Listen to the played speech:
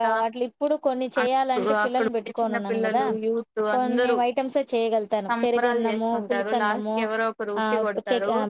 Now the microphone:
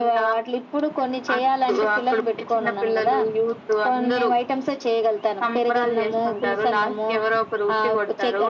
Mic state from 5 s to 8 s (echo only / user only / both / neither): echo only